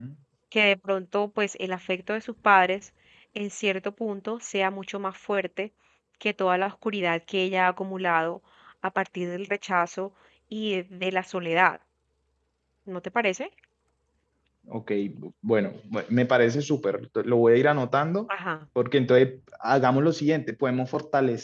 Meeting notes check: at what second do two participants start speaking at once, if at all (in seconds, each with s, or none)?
none